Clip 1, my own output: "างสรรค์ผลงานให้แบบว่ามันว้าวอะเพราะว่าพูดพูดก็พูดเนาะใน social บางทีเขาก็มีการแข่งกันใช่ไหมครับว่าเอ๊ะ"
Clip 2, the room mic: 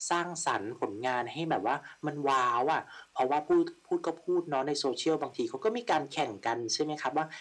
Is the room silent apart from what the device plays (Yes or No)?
Yes